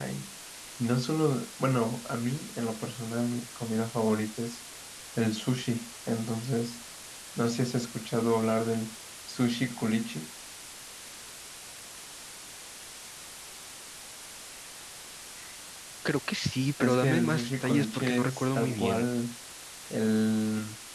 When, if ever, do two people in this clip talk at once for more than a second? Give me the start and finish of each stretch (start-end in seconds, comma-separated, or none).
16.8-19.1